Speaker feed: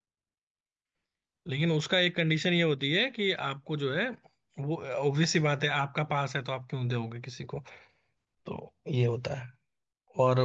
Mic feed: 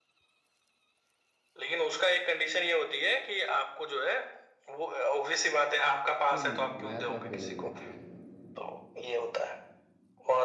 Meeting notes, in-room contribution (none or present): present